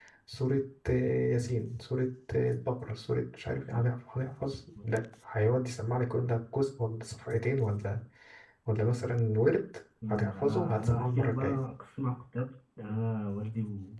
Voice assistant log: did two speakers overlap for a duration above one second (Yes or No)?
Yes